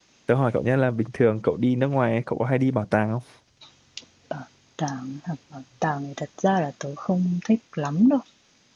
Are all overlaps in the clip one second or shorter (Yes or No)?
Yes